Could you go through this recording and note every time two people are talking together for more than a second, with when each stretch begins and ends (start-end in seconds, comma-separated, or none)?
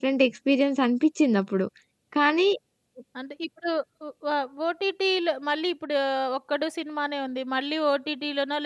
none